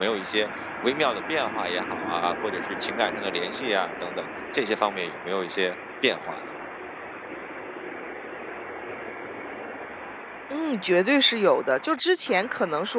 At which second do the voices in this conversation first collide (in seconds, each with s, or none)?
none